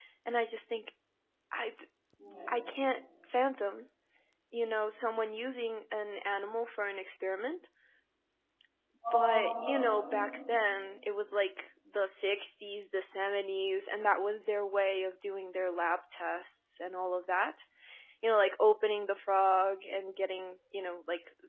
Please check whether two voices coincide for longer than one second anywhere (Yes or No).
Yes